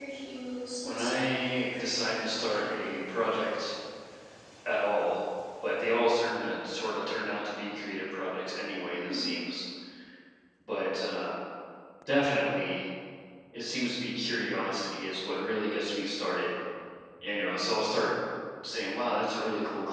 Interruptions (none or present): present